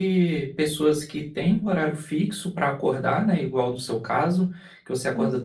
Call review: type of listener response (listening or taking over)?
listening